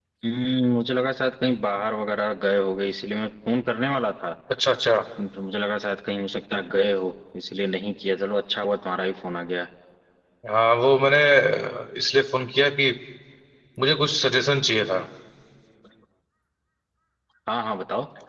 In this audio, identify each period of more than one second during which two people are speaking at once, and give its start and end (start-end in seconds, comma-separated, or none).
none